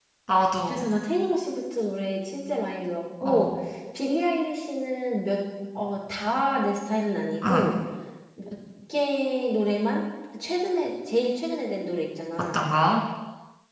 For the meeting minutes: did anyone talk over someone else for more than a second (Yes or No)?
No